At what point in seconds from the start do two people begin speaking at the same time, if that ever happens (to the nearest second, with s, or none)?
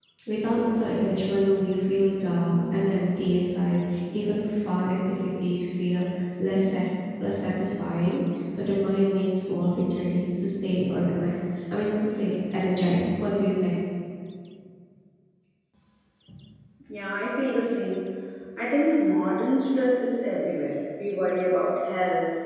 none